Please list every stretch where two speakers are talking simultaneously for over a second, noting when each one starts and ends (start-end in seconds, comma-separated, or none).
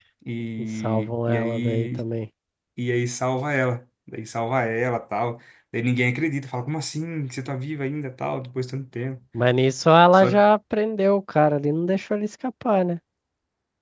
0.6-2.0